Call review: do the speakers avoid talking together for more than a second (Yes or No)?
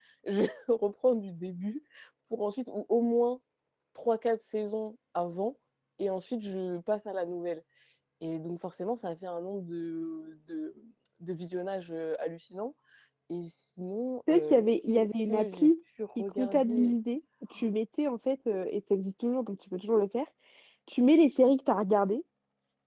No